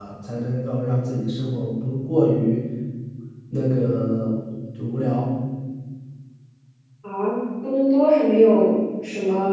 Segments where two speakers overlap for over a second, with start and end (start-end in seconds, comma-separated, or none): none